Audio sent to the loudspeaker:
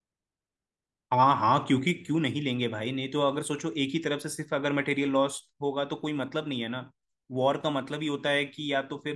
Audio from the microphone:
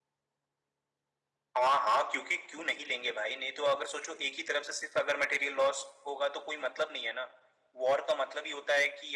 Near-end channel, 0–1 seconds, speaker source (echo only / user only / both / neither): neither